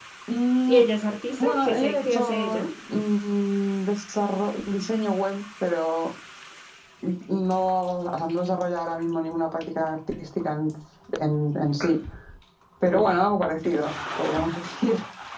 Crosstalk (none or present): present